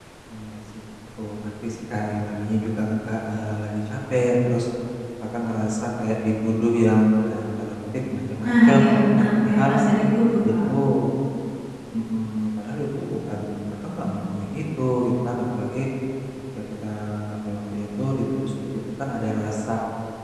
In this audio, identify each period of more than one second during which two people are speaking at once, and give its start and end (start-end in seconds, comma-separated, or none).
8.4-9.7